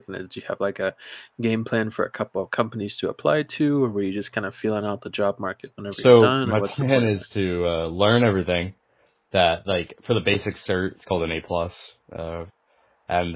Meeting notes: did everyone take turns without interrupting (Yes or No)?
No